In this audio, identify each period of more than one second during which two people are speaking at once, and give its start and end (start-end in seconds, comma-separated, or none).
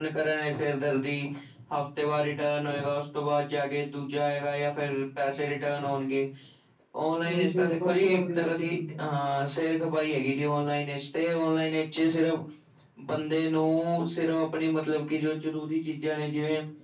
7.3-9.1